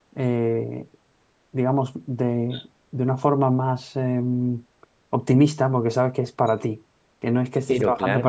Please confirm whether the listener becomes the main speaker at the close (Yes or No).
No